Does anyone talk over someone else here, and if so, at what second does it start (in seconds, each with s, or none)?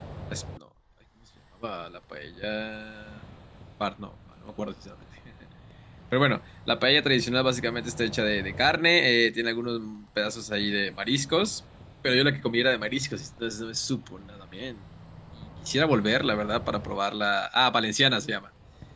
none